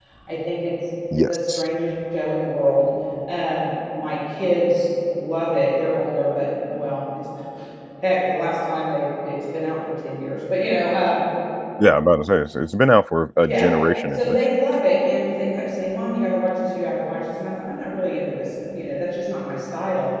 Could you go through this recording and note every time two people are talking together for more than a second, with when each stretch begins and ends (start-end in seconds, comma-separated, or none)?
none